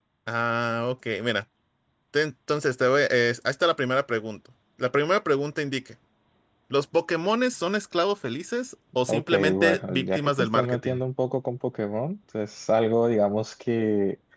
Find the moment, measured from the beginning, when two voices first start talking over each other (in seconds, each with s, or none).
9.1 s